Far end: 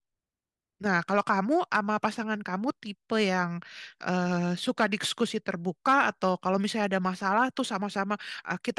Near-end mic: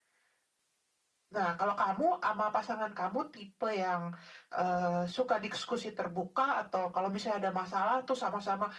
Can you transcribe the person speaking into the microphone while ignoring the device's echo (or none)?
none